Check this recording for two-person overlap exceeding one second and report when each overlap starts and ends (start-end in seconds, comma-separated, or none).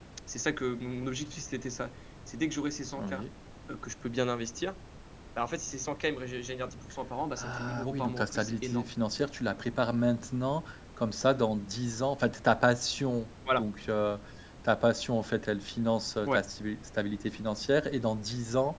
7.4-8.9